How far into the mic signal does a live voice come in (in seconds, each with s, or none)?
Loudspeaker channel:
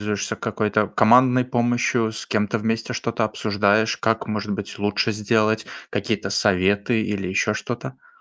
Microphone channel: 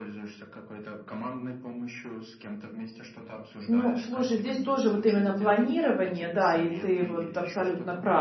3.6 s